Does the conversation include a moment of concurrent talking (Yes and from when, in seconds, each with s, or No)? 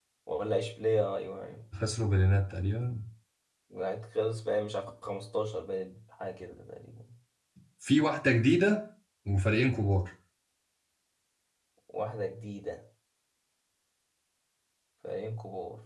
No